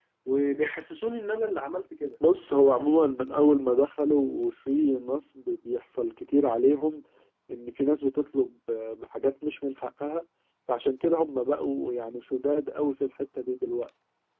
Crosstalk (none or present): none